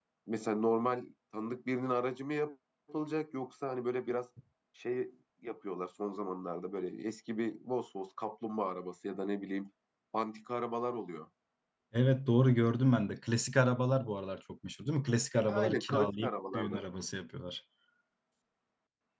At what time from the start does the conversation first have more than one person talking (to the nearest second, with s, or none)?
15 s